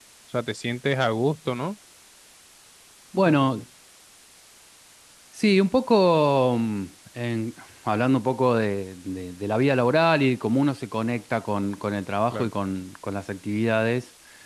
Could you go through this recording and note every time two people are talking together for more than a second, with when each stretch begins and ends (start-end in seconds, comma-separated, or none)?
none